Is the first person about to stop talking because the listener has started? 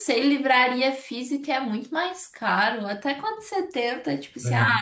No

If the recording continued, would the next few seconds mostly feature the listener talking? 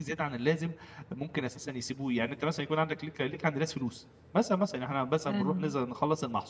No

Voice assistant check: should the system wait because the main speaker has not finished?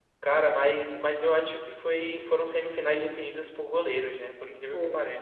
No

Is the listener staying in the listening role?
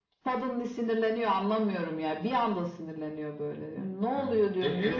No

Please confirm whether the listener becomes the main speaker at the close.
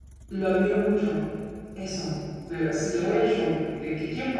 No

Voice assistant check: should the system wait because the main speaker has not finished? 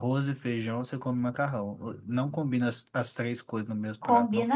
No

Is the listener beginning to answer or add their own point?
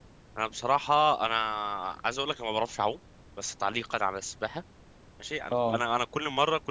No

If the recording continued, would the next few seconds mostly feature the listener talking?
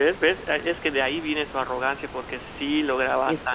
Yes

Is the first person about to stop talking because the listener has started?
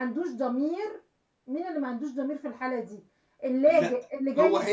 Yes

